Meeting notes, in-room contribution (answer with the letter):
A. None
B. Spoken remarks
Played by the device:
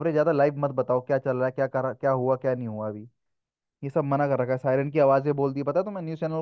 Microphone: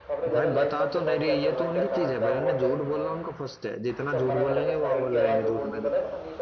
B